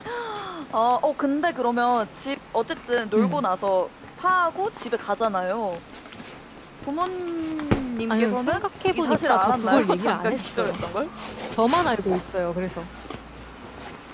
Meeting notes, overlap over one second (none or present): present